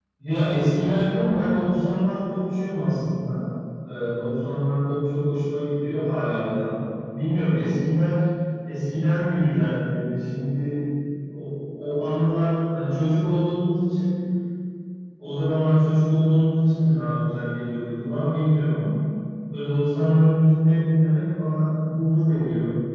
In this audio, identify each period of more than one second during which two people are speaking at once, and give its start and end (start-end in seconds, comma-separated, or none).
none